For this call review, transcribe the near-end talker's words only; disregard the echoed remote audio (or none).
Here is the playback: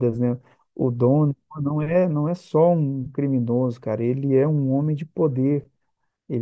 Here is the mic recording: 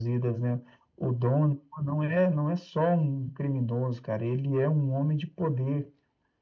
none